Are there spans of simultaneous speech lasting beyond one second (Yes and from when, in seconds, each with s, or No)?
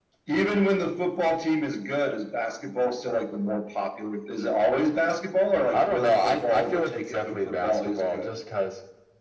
Yes, from 5.7 s